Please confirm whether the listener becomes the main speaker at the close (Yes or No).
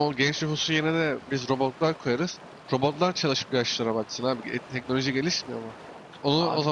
No